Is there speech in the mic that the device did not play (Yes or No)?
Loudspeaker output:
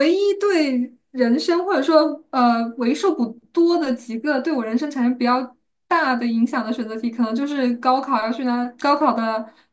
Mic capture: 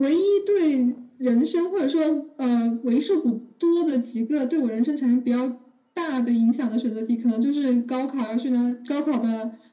No